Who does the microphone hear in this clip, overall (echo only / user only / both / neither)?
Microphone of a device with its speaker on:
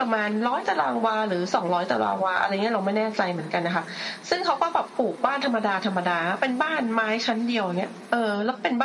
echo only